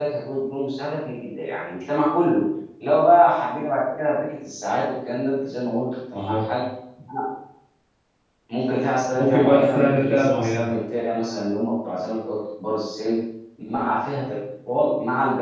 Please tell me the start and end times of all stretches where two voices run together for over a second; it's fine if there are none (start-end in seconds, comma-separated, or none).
9.1-10.7